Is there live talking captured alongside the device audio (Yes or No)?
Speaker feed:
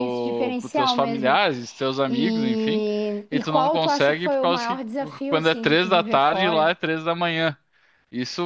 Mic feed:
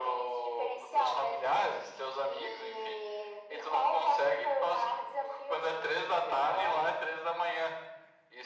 No